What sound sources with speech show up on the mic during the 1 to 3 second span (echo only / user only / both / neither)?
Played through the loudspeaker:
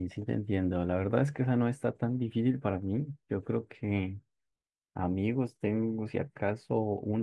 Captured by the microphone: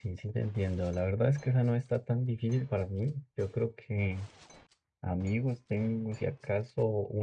echo only